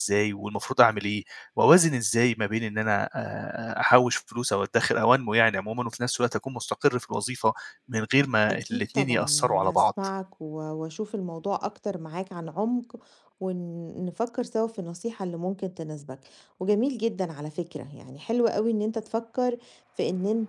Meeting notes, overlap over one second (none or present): present